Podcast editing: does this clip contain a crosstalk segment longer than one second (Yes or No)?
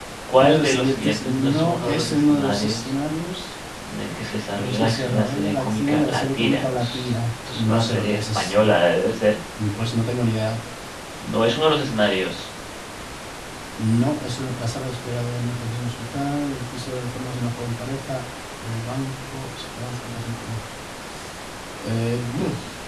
Yes